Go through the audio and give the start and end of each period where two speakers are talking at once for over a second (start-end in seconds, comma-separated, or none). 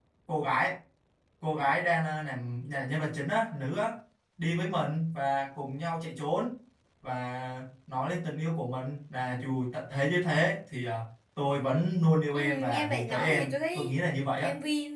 12.3-13.9